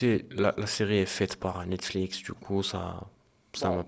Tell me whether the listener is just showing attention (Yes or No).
No